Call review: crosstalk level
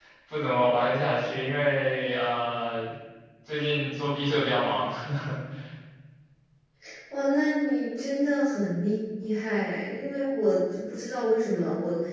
none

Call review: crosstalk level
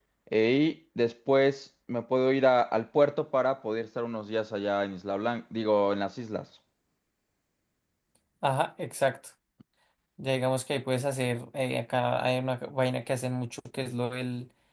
none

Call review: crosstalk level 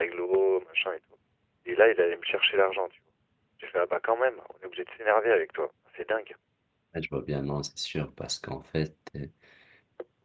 none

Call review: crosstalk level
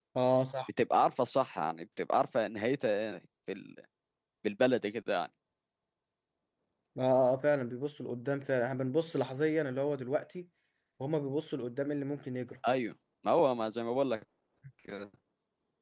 none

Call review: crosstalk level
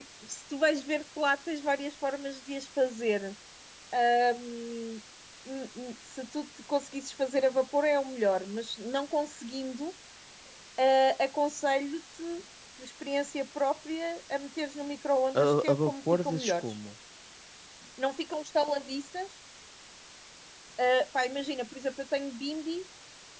present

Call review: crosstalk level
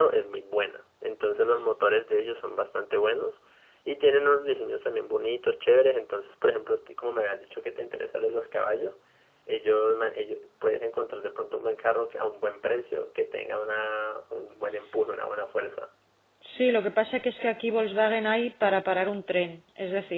none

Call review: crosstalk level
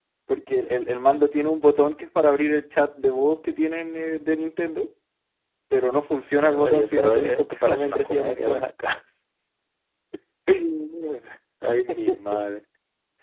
present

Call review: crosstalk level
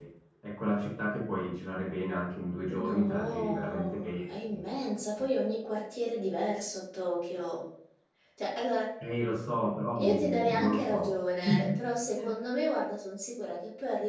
present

